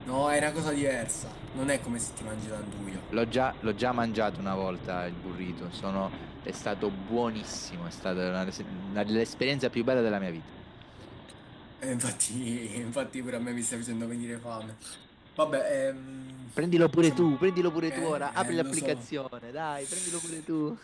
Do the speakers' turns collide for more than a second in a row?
Yes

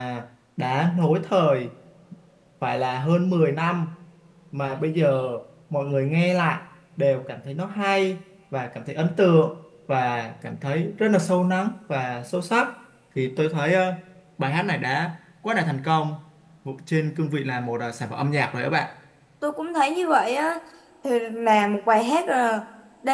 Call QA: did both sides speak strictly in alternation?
Yes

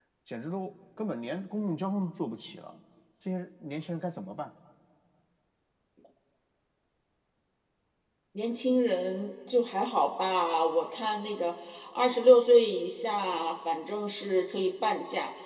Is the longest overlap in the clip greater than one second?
No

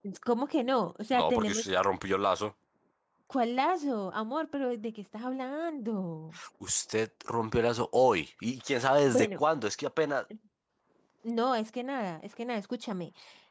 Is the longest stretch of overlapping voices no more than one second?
Yes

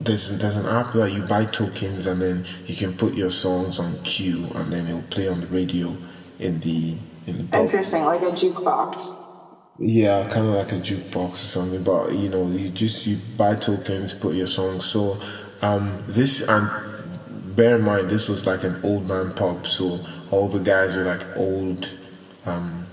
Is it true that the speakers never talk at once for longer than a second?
Yes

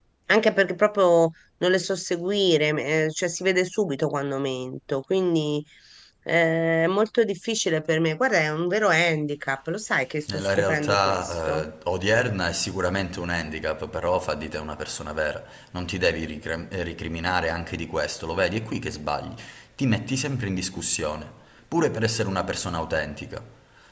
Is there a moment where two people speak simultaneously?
Yes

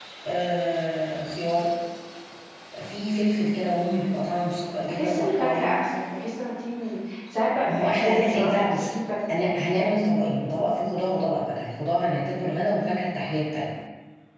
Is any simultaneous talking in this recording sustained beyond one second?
Yes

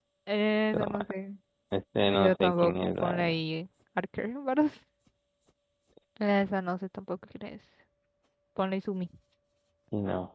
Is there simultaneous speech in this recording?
Yes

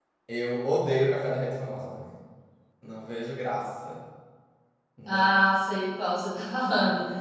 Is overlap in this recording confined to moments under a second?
Yes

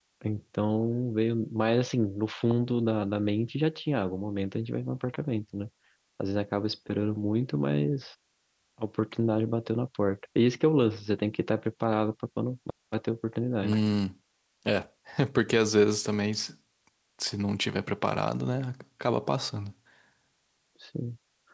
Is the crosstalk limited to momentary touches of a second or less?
Yes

